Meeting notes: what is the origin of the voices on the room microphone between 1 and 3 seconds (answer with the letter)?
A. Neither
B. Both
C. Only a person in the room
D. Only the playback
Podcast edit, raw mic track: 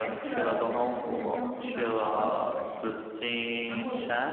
B